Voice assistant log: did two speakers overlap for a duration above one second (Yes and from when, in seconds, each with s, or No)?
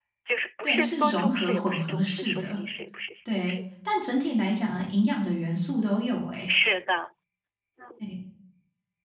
Yes, from 0.6 s